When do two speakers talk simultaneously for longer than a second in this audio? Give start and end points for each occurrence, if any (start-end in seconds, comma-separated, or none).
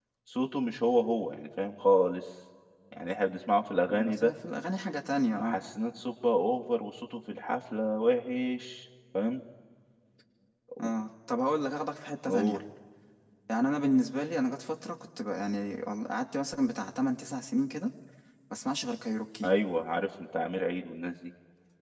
none